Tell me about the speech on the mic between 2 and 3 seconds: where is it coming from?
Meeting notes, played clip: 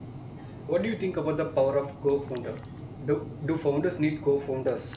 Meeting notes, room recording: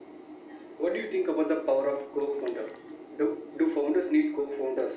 echo only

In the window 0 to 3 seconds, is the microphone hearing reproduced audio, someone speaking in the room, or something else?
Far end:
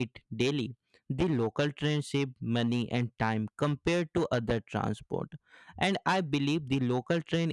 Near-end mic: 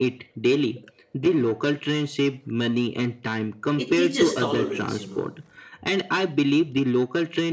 echo only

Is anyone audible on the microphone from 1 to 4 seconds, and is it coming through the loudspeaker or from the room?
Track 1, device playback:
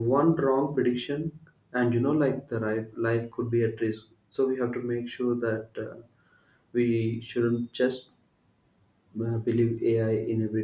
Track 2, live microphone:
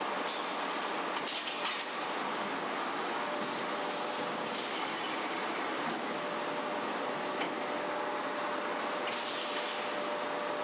neither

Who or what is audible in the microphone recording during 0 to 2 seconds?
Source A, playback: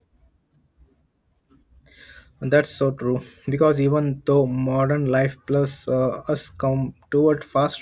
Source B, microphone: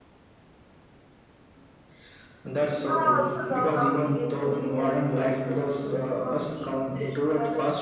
neither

